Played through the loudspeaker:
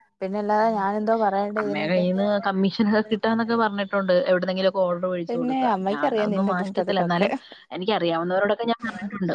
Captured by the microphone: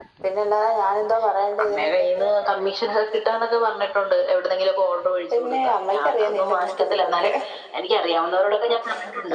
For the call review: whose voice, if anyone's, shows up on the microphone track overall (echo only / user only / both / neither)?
echo only